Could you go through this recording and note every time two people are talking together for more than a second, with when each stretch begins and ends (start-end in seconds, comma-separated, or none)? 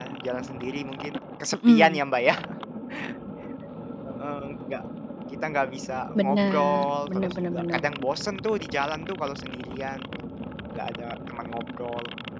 6.2-7.8